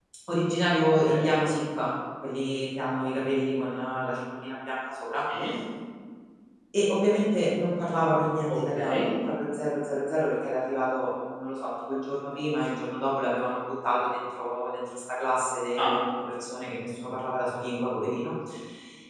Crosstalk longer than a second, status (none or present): none